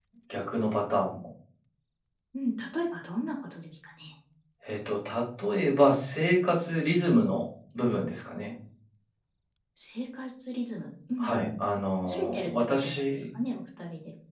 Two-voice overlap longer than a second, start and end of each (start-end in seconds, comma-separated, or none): 12.0-13.2